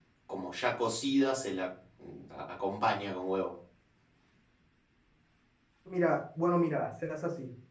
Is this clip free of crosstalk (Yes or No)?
Yes